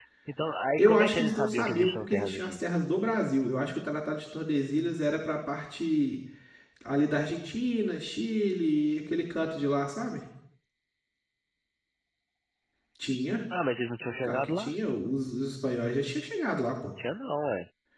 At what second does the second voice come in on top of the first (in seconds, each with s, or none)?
0.8 s